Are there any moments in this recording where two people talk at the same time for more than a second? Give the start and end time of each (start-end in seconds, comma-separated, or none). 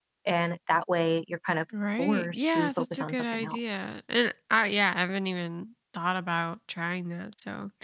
2.0-3.8